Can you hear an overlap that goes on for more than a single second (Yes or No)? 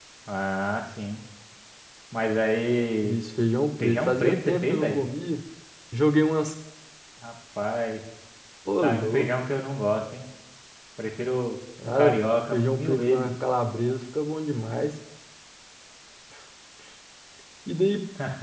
Yes